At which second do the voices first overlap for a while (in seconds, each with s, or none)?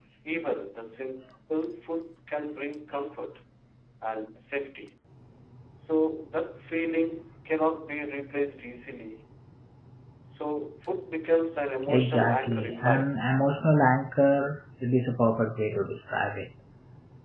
11.9 s